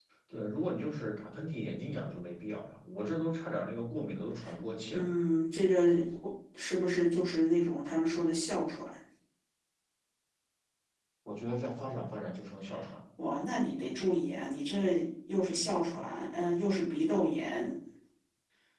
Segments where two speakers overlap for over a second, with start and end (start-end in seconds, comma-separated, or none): none